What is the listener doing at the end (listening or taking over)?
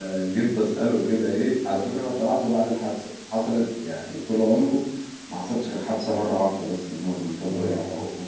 listening